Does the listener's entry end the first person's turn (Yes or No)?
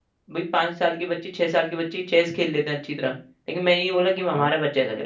No